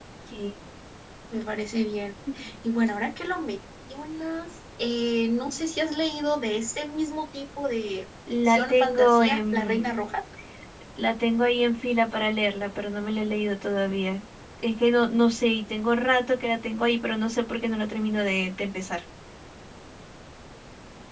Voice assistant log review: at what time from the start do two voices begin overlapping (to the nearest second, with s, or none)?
8 s